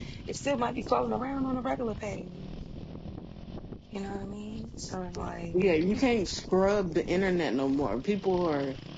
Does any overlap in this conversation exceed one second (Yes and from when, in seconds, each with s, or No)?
No